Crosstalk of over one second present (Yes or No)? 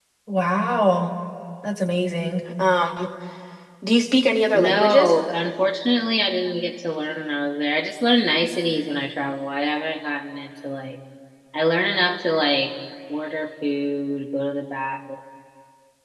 No